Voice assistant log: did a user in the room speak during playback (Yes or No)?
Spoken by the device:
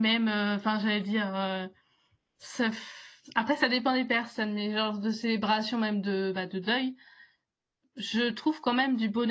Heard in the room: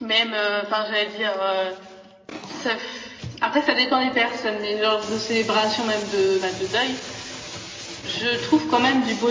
No